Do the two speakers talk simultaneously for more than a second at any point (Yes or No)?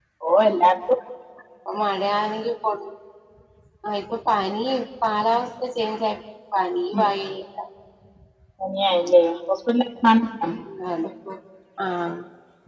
No